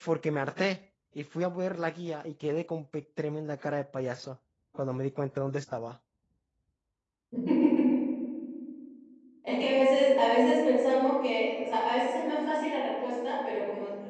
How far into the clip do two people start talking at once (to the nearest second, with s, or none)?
none